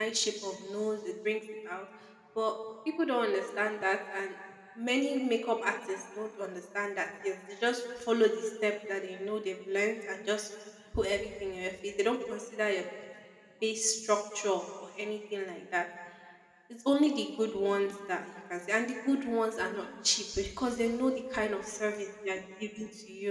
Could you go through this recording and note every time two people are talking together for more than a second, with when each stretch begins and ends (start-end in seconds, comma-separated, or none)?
none